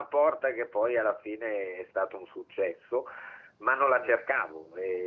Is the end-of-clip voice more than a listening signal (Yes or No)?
No